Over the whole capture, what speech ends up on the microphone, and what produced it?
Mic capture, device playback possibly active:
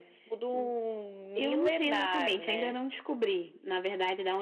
echo only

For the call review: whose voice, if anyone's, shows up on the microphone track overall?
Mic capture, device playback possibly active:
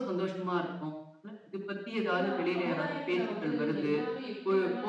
both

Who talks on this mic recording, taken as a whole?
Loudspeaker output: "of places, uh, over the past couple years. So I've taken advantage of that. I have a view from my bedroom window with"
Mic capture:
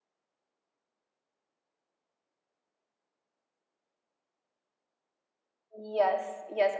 user only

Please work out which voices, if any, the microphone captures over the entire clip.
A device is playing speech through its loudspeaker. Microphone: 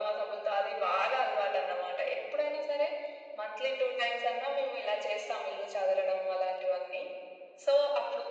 echo only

